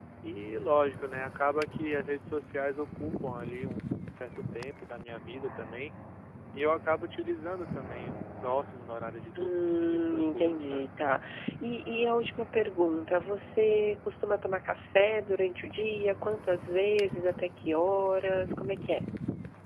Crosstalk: present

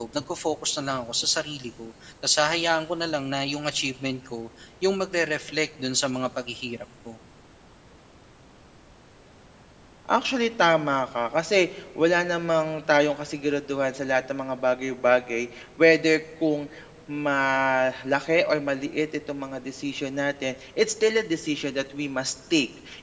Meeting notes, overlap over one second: none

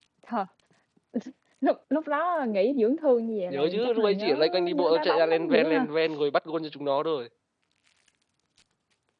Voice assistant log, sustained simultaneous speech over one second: present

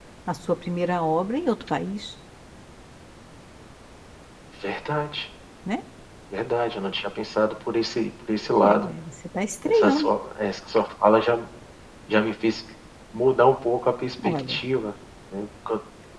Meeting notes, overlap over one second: none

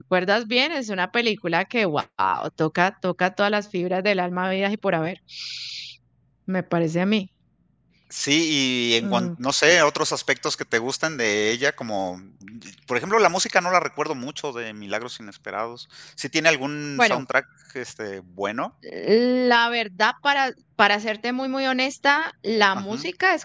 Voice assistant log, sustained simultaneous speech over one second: none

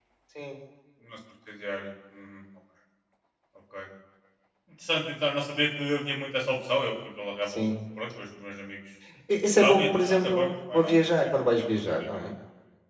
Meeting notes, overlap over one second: present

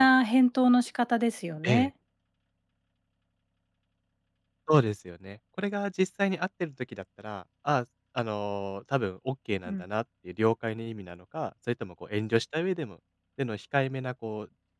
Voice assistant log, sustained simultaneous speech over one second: none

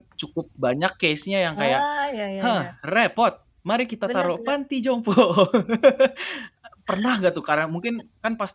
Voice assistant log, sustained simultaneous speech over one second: none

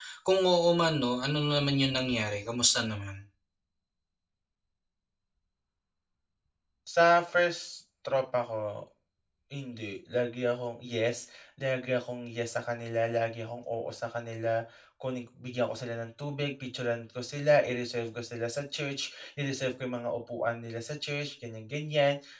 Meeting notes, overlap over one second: none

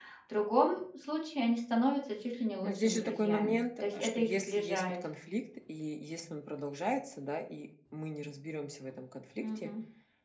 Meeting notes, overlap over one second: present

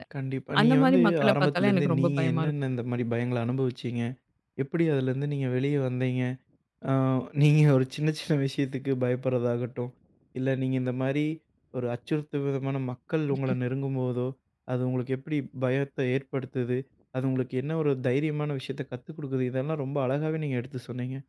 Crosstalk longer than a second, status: present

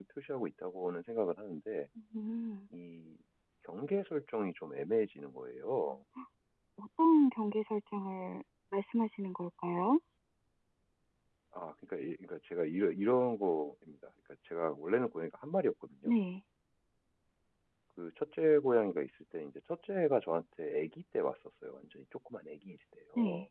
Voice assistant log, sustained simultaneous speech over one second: none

